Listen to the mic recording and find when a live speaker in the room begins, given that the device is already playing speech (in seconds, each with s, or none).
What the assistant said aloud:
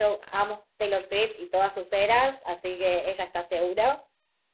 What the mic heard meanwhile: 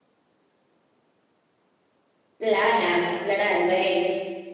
2.4 s